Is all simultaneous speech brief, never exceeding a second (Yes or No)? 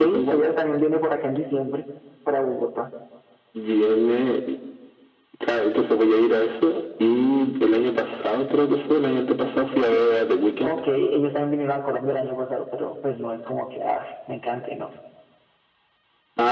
Yes